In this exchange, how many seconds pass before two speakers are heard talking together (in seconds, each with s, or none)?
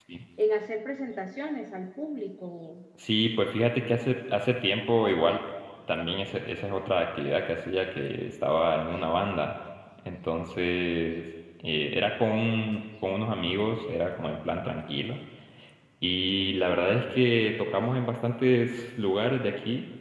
none